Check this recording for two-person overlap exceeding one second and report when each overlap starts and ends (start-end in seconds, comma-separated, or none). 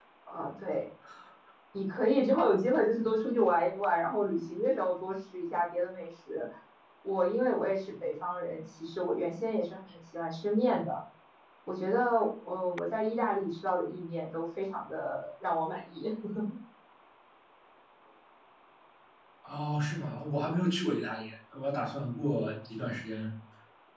none